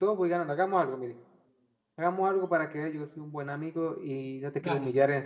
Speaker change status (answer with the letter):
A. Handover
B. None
B